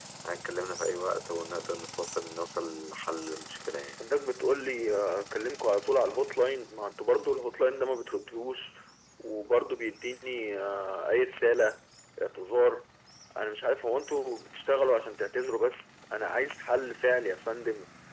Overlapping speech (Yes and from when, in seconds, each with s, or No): No